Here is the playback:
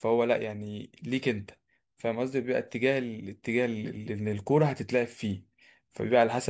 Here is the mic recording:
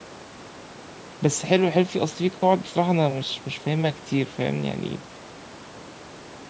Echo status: none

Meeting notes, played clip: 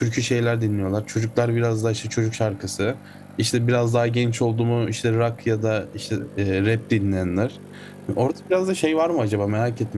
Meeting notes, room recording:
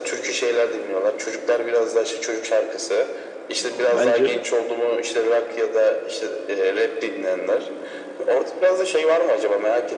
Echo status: present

